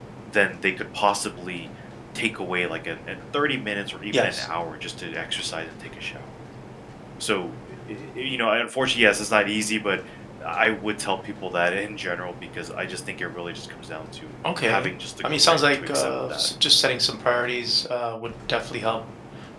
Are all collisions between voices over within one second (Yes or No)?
No